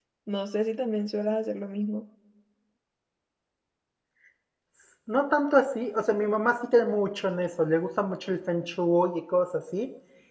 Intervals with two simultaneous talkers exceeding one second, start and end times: none

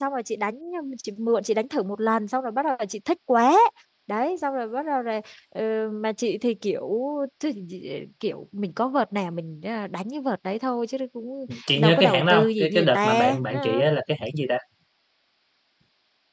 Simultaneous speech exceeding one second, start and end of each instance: 11.8-13.9

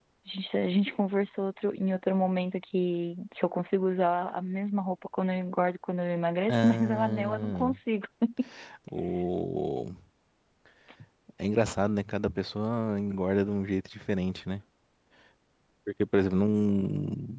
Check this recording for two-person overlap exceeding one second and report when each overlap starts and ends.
6.5-7.8

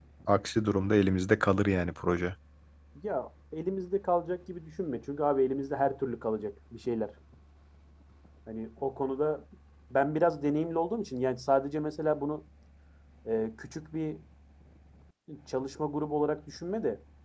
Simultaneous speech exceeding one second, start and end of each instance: none

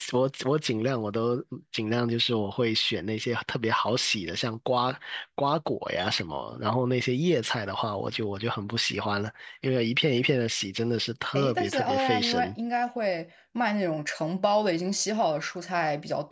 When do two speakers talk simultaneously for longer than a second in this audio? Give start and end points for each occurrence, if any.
11.3-12.6

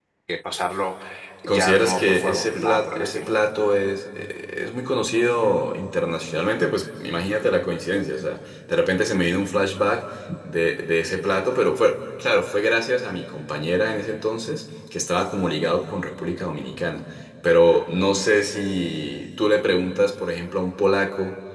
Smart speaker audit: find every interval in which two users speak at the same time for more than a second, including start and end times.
1.5-3.3

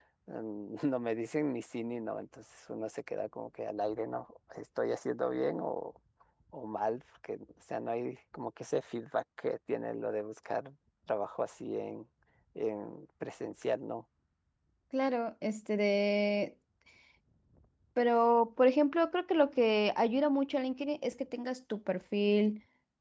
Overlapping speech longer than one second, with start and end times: none

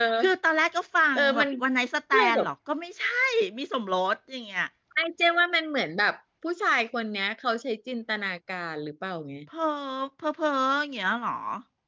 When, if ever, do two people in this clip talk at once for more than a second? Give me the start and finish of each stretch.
none

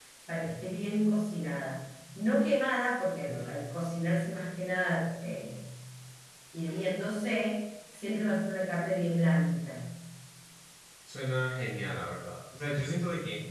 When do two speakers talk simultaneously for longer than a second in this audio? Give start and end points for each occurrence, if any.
none

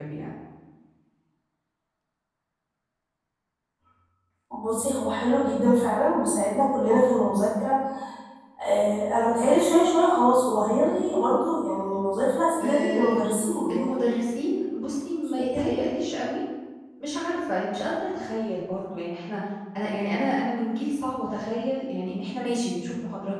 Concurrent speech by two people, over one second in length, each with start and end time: 12.6-14.1

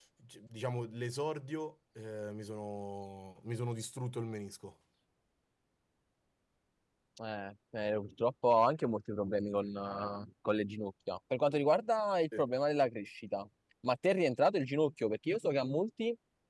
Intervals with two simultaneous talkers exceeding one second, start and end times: none

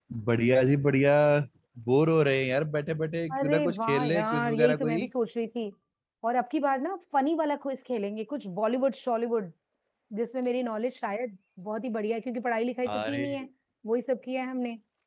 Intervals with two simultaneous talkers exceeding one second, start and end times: 3.3-5.1

